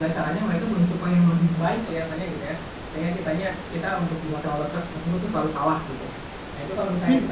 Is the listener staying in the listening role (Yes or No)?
Yes